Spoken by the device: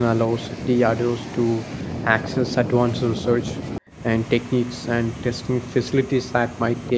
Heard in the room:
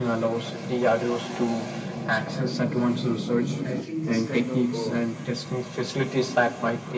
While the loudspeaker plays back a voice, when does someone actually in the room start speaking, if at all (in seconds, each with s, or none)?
3.6 s